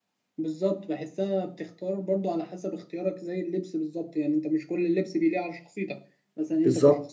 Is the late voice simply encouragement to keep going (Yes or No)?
Yes